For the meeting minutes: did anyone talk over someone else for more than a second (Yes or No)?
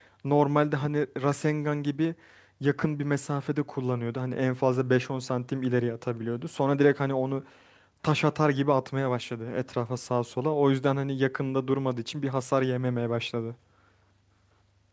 No